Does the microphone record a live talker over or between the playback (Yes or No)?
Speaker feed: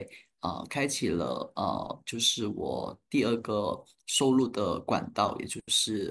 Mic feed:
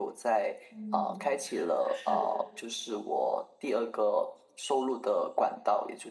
Yes